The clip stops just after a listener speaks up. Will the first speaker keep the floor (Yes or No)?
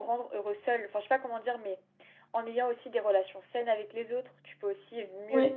Yes